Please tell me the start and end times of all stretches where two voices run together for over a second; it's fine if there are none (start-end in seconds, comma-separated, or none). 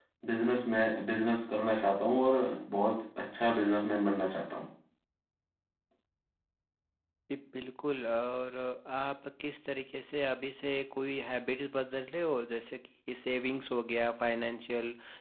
none